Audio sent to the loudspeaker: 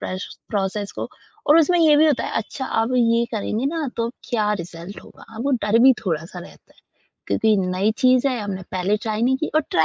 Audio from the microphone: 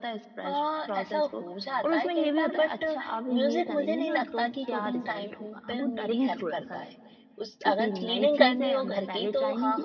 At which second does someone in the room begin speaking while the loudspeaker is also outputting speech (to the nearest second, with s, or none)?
0 s